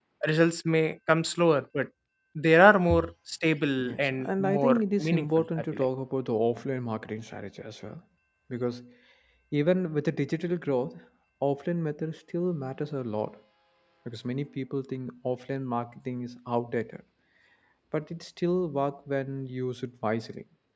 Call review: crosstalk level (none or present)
present